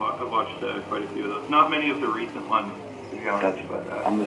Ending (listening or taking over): taking over